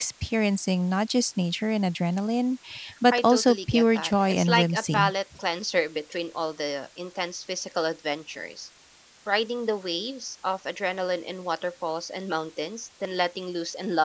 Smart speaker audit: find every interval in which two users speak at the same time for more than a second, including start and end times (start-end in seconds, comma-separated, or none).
3.1-5.1